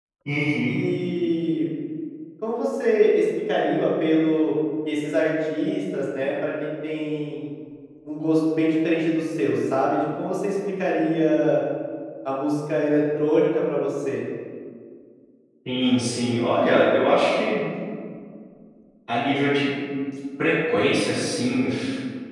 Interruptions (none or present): none